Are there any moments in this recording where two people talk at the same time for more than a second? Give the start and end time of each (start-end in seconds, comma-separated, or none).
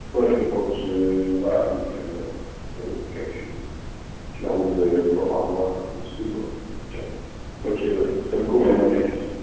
none